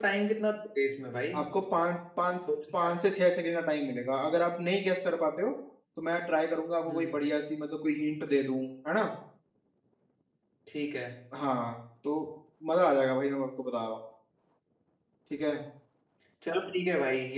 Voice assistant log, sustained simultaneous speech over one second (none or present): none